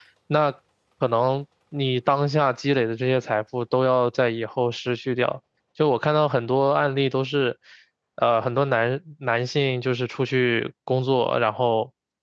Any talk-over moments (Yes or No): No